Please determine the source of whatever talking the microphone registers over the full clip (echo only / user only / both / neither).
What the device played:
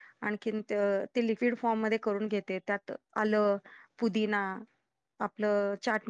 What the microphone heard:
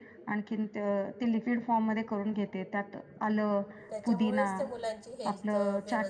both